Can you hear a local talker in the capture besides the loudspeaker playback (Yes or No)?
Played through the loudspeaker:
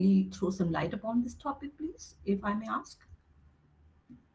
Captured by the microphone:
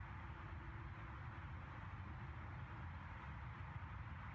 No